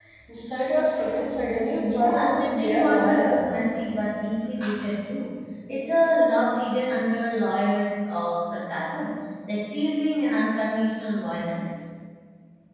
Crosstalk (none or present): present